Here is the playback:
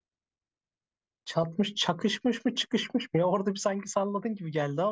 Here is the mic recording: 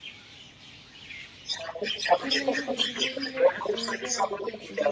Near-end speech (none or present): present